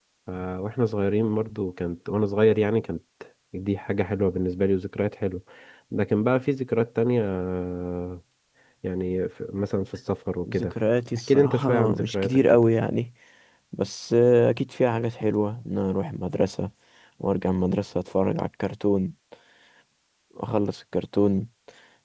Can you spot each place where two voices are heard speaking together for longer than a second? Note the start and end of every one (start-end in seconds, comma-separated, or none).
11.3-12.6